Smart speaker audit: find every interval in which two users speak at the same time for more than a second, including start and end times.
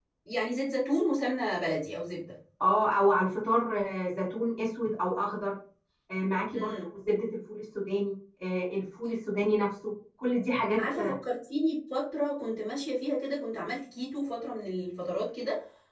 none

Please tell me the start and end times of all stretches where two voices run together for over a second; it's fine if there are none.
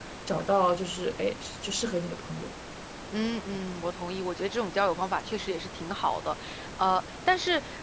none

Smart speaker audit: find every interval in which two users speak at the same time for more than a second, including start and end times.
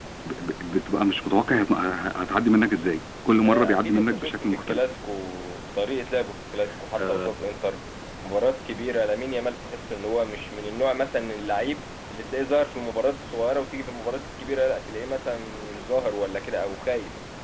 3.4-4.8

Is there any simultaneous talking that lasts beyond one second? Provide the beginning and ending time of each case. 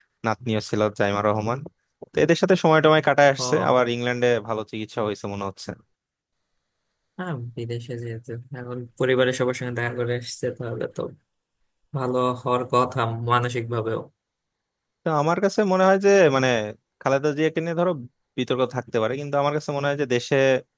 none

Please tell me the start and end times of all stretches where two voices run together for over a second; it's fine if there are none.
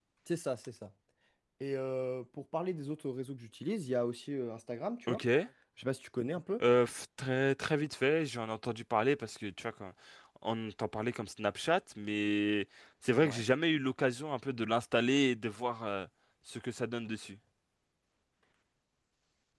none

